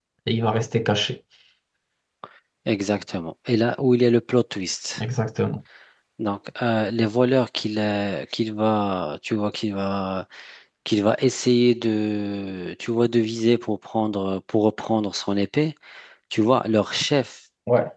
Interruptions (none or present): none